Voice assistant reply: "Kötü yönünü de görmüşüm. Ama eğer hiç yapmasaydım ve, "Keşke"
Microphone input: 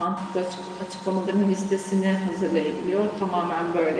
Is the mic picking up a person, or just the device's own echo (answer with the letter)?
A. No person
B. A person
B